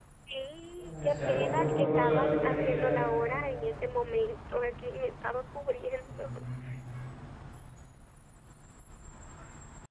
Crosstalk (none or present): present